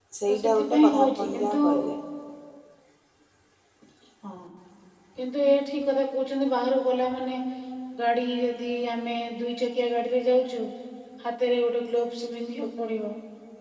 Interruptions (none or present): present